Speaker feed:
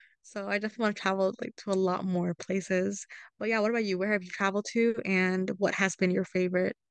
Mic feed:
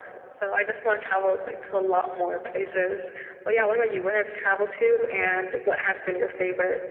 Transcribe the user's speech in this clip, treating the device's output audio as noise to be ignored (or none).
none